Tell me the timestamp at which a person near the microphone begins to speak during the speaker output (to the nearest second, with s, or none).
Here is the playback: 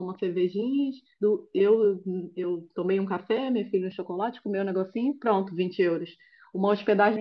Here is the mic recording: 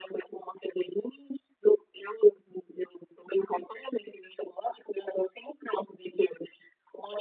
none